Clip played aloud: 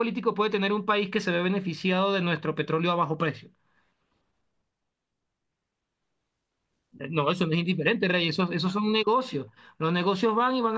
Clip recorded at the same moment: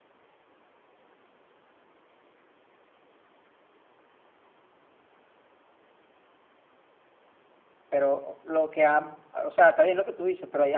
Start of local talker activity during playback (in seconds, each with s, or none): 7.9 s